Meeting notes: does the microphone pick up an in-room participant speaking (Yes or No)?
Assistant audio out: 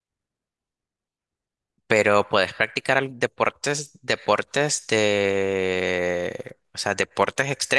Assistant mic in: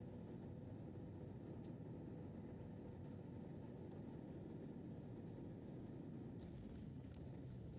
No